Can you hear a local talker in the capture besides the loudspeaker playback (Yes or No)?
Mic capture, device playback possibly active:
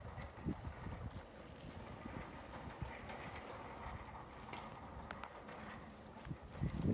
No